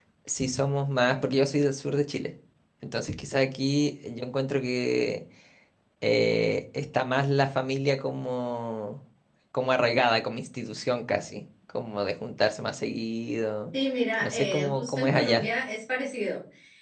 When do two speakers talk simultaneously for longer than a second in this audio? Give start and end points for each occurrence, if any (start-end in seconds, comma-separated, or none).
14.2-15.5